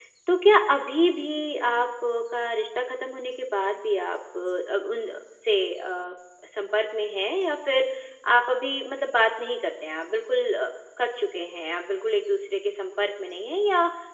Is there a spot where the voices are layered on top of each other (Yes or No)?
No